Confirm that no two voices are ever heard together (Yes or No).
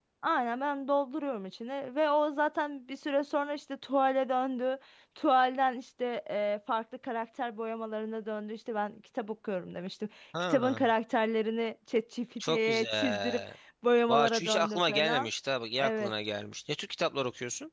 No